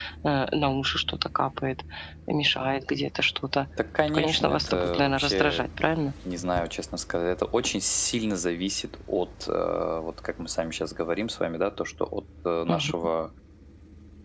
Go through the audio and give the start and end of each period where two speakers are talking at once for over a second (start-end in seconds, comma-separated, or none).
4.1-5.7